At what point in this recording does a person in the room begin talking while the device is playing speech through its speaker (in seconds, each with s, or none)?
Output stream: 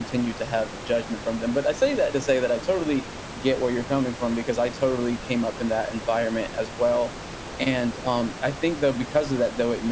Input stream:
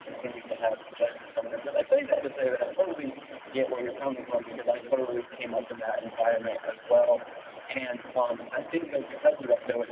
none